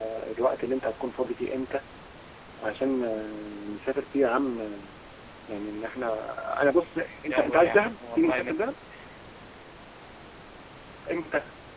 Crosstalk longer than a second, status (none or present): present